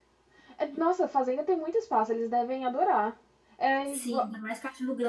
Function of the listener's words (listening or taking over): taking over